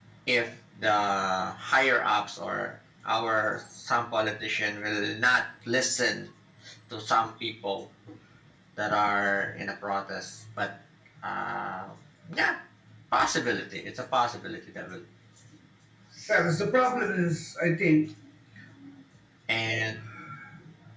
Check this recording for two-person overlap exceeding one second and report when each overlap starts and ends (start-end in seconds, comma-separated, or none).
none